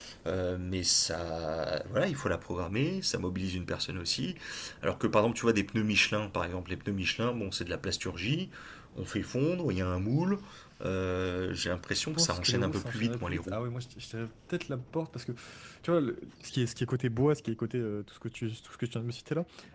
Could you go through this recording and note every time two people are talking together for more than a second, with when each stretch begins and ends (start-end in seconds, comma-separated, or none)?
12.1-13.6